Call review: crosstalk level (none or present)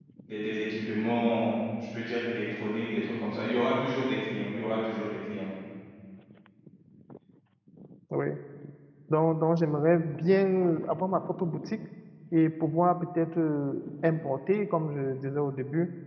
none